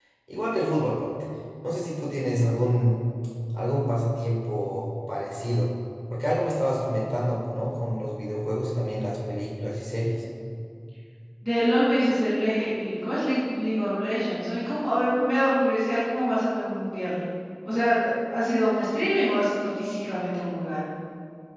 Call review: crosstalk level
none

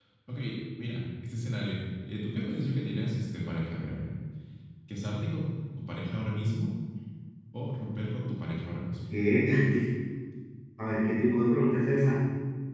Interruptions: none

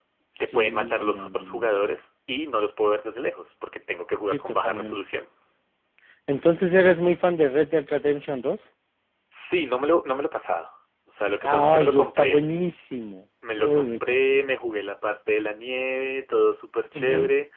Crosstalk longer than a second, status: present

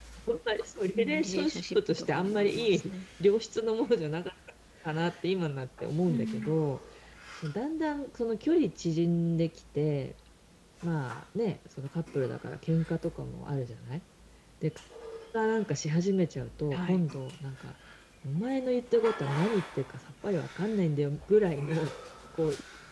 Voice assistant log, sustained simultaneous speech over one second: present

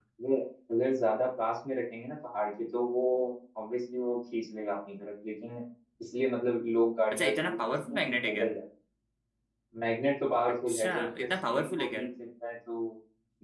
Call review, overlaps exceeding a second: present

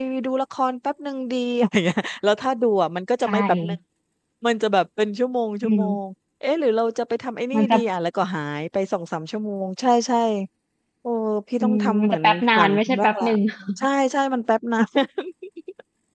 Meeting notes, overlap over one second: present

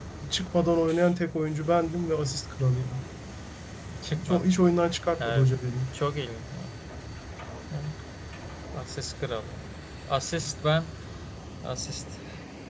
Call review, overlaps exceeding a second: none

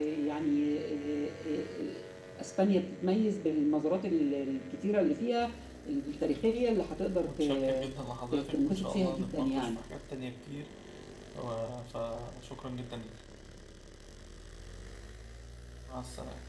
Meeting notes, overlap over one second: present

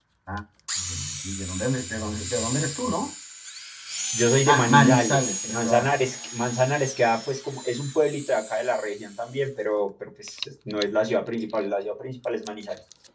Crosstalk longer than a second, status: present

